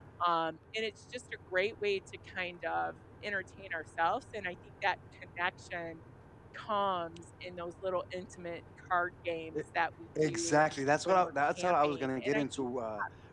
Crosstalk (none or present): present